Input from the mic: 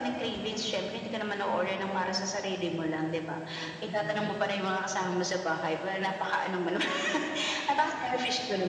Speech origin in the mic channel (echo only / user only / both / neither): both